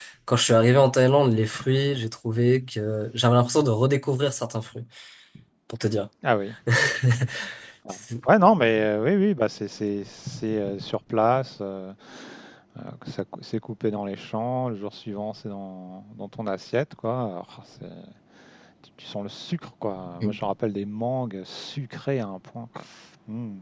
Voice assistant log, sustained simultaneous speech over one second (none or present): none